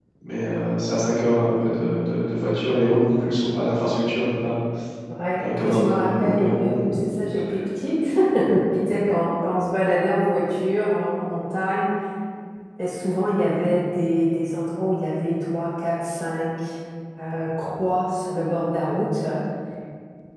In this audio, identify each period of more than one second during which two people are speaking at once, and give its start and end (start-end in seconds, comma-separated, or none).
5.4-6.8